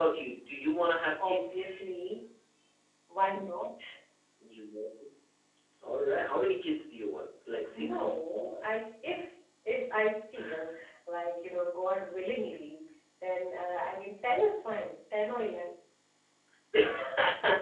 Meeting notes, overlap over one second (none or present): none